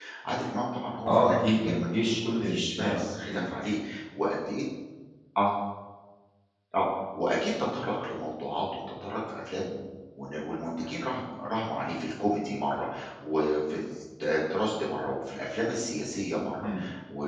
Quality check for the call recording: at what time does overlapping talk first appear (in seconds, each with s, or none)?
1.1 s